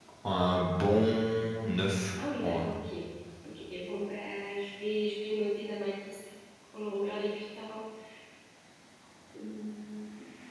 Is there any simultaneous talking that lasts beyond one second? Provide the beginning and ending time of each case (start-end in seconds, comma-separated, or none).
none